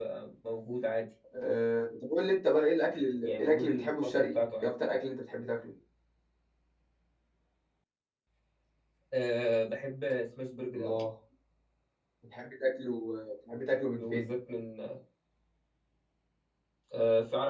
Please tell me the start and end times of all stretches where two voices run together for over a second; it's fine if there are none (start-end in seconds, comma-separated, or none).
3.2-4.7